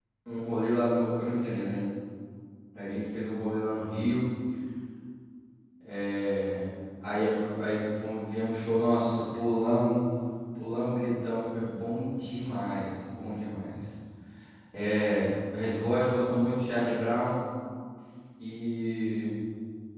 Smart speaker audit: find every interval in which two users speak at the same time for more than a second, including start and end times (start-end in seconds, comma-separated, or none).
none